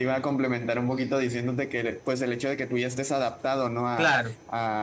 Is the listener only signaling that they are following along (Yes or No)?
Yes